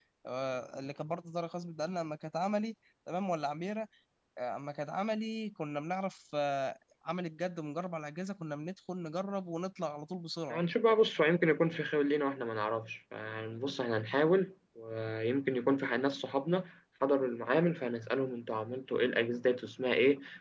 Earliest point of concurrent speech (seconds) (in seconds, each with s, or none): none